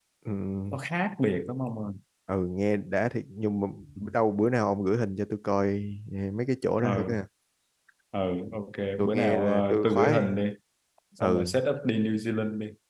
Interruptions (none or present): present